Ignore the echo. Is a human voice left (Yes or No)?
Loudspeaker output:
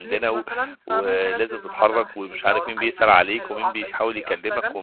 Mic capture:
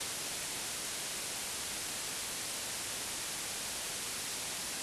No